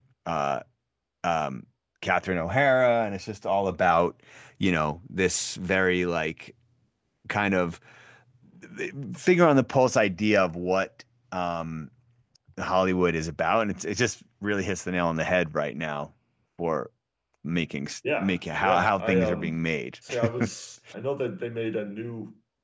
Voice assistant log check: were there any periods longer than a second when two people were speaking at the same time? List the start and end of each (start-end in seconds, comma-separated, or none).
18.2-19.6